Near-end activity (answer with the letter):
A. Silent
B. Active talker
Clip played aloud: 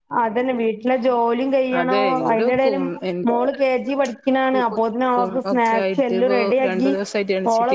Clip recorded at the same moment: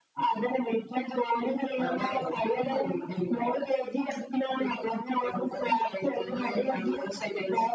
A